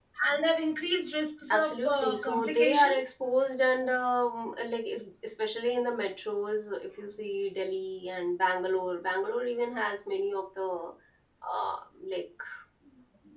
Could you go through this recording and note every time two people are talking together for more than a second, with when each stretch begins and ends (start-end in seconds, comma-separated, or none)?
1.5-3.1